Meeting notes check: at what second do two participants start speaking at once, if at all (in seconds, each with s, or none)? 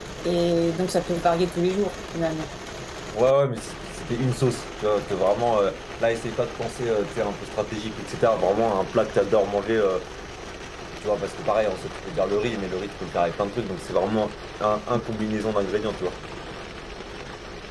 none